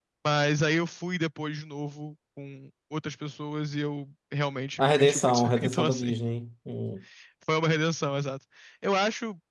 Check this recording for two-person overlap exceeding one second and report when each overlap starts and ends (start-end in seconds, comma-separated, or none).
4.8-6.1